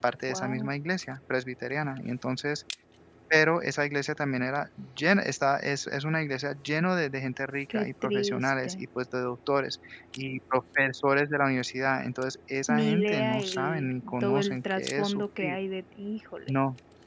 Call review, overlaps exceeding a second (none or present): present